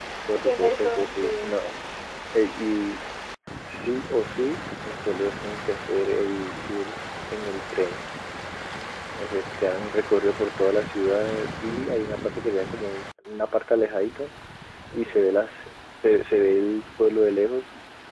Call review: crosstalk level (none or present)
present